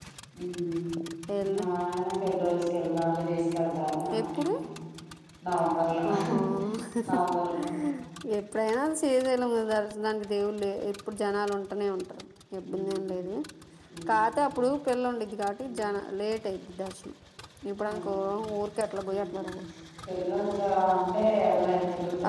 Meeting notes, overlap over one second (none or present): none